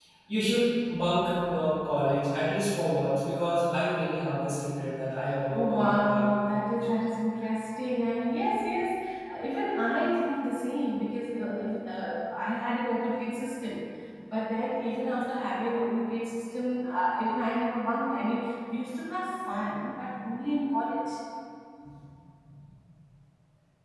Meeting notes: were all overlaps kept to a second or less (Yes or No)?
No